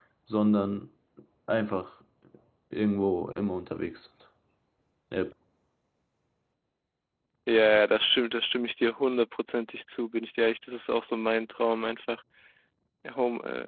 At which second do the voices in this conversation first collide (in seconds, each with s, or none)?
none